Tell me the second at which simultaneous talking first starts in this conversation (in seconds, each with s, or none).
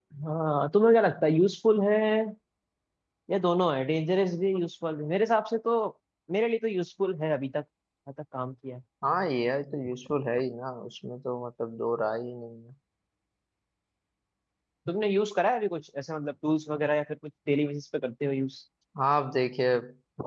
none